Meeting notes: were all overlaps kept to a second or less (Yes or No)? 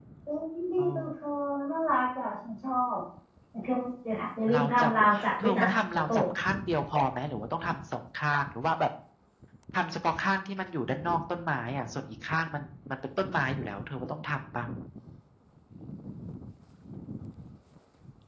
No